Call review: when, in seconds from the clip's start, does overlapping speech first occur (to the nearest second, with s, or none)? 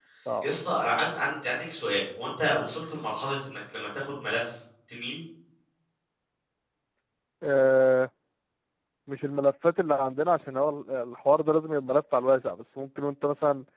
none